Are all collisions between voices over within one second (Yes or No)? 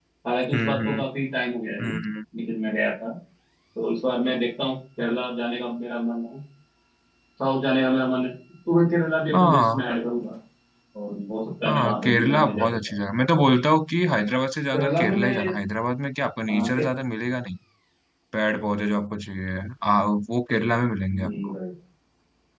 No